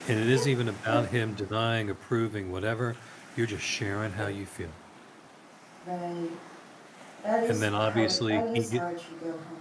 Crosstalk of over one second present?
Yes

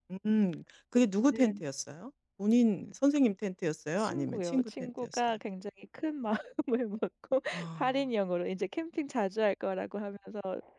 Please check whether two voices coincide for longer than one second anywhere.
Yes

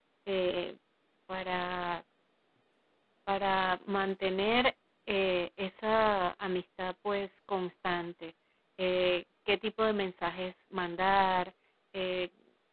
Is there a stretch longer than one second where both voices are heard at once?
No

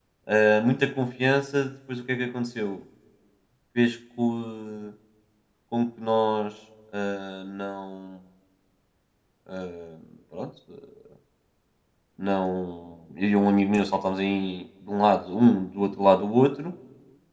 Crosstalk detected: No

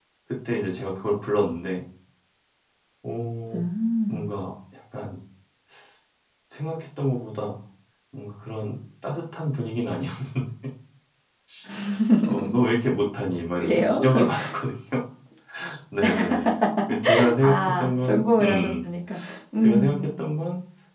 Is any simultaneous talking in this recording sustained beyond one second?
Yes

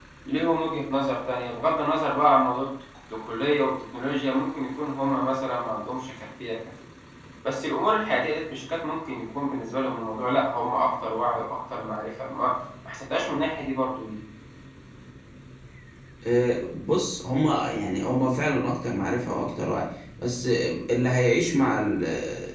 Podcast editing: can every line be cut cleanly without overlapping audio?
Yes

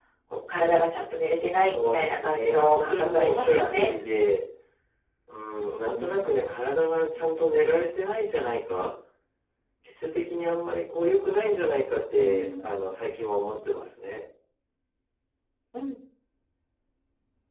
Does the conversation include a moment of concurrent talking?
Yes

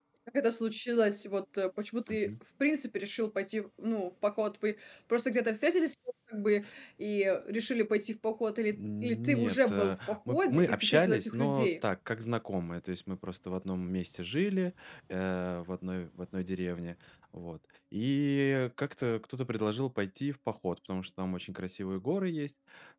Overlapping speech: Yes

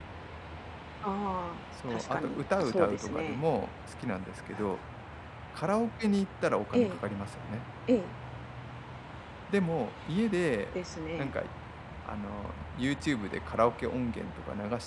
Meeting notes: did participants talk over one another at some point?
Yes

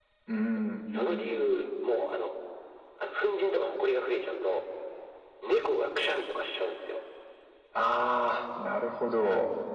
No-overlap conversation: Yes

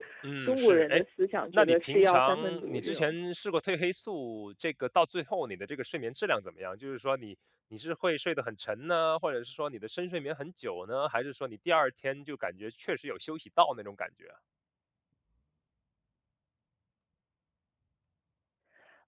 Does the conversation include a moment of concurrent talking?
Yes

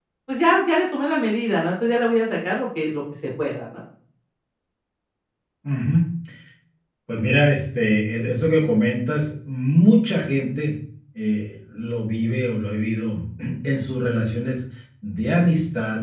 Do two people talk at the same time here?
No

